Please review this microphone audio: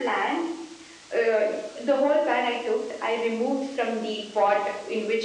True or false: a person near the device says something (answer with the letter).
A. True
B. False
B